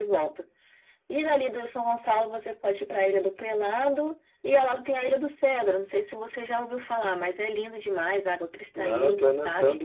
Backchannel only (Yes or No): No